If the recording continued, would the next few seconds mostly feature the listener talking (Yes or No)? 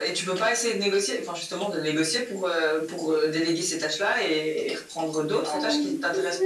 Yes